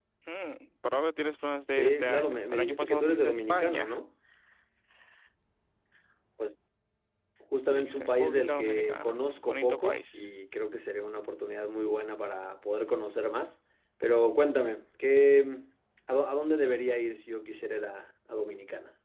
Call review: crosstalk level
present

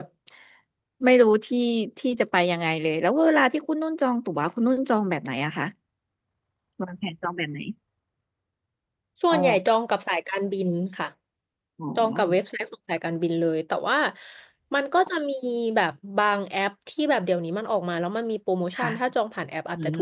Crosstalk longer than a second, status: none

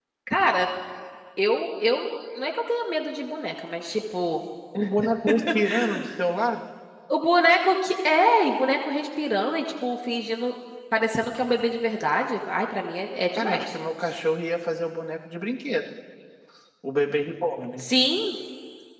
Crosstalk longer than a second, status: none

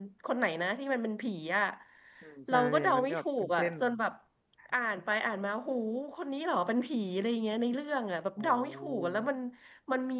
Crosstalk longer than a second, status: present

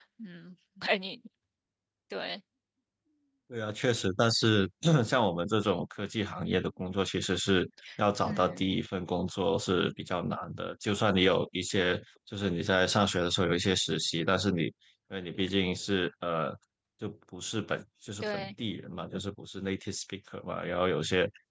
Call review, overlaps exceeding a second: none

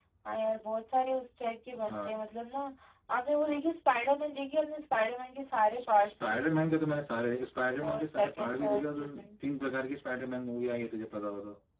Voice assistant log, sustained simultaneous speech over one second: present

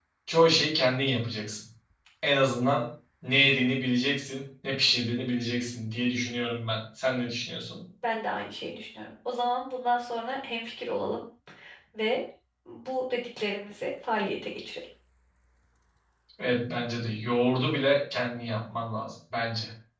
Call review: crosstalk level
none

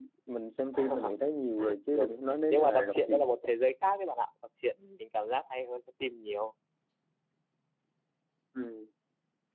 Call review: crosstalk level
present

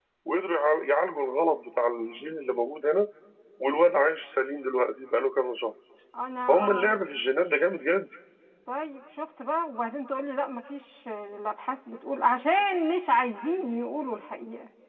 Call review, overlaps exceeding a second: none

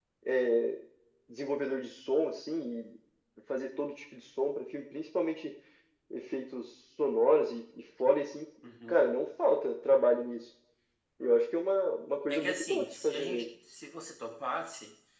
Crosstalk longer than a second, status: present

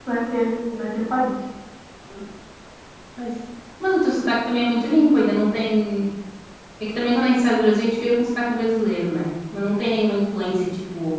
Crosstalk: none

